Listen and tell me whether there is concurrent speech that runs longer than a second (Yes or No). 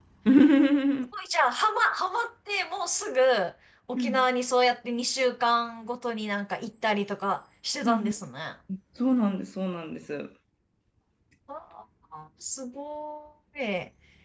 No